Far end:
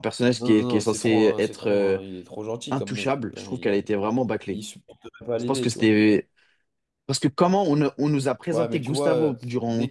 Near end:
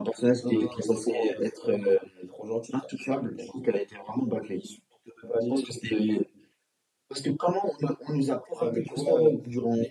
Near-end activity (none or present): none